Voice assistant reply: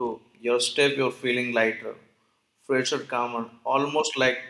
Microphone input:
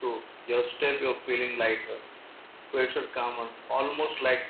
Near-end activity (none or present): none